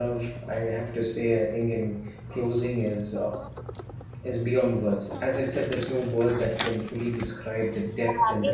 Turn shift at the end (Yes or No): Yes